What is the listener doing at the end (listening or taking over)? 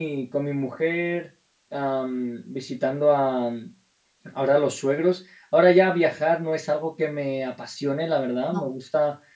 listening